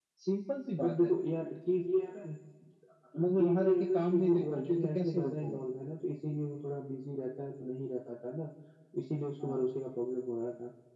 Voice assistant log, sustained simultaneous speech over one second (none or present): present